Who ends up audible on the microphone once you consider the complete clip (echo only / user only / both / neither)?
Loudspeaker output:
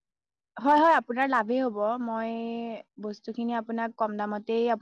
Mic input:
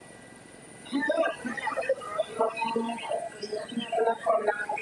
echo only